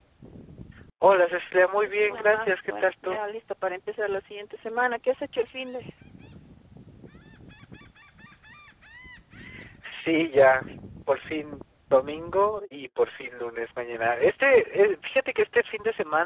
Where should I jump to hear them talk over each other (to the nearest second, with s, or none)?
2 s